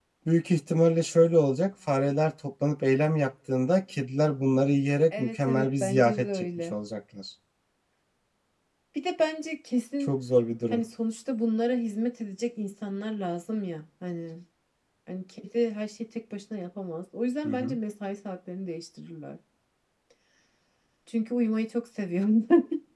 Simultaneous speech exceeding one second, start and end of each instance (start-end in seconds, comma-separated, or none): 5.2-6.7